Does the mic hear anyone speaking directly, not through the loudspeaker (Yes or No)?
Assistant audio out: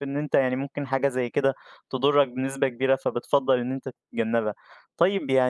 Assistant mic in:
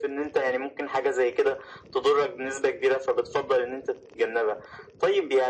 No